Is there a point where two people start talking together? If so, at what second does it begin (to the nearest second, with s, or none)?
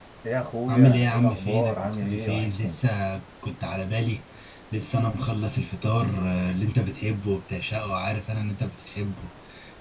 1 s